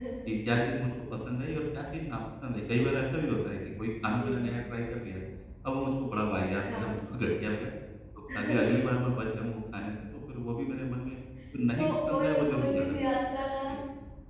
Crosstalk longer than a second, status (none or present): present